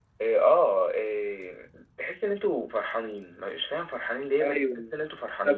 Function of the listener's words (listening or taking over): taking over